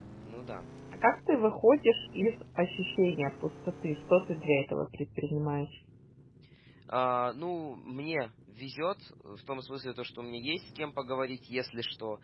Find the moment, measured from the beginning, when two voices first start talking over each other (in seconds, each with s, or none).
none